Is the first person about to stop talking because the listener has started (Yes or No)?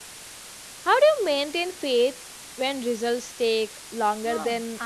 Yes